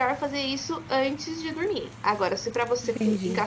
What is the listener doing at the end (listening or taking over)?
listening